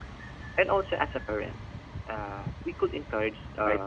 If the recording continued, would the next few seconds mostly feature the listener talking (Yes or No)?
No